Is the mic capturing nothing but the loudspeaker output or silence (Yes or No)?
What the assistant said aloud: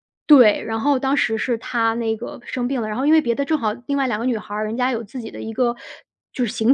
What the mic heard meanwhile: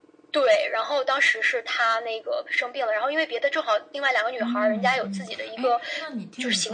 No